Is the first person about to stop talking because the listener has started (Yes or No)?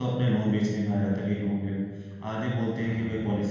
No